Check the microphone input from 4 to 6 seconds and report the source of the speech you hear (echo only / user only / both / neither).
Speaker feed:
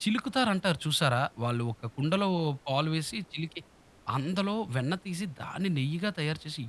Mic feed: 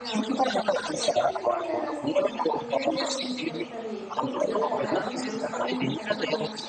both